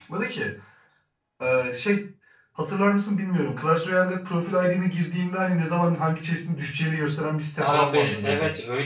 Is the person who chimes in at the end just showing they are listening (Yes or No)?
No